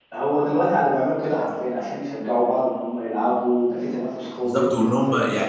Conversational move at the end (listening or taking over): taking over